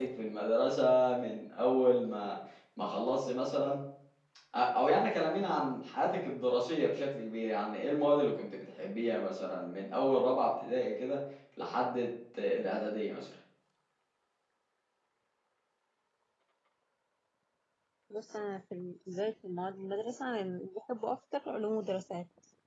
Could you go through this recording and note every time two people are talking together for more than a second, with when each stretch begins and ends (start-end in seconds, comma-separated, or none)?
none